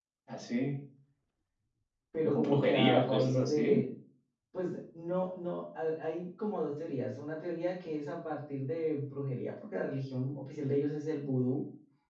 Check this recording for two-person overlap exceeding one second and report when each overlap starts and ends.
2.3-3.8

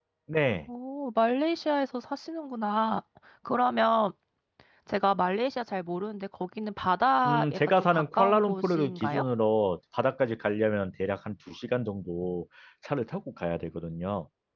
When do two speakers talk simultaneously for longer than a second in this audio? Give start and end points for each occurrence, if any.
7.3-9.2

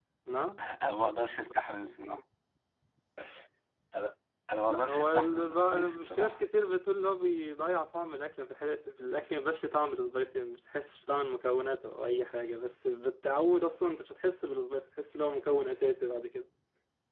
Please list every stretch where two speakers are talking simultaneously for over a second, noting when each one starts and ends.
4.7-6.4

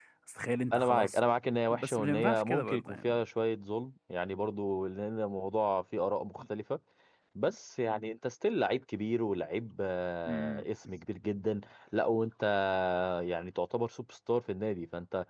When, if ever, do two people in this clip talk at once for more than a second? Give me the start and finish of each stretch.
1.7-3.2

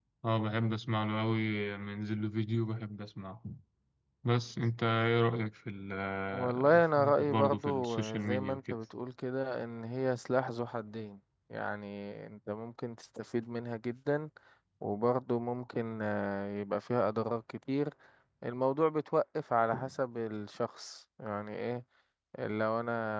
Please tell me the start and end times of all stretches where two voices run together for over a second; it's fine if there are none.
6.3-8.8

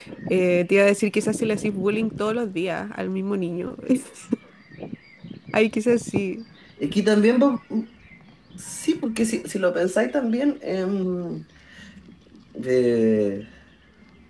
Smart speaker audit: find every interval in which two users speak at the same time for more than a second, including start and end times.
none

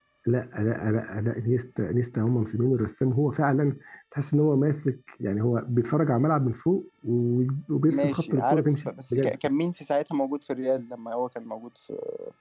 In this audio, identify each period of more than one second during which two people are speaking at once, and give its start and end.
7.9-9.4

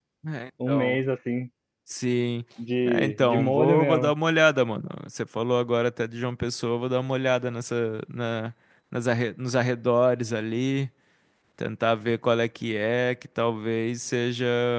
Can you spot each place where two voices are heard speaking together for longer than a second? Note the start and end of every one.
2.9-4.1

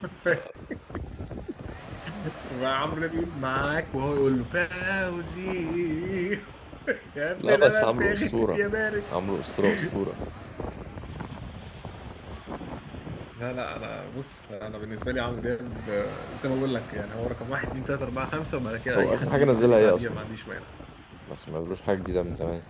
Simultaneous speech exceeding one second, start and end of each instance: 7.4-8.6, 18.9-20.2

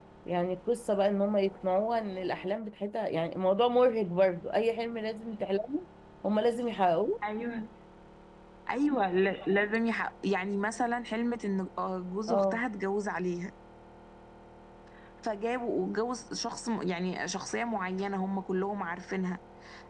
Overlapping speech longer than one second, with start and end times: none

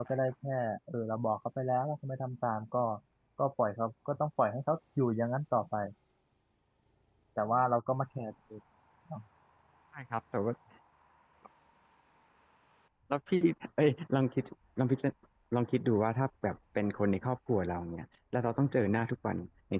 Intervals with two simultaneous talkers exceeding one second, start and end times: none

